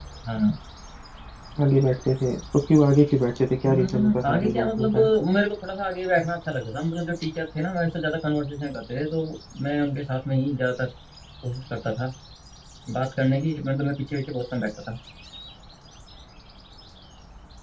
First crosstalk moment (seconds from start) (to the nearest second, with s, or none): 4 s